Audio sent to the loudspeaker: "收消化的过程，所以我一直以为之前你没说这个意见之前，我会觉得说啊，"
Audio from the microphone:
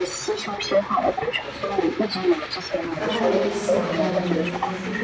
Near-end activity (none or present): present